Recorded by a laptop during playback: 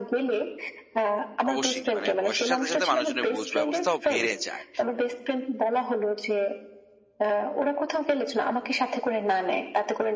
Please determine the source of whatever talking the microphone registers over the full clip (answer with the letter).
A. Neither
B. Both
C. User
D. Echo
B